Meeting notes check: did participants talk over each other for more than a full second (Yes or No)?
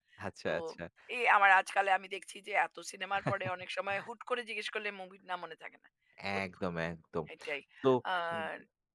No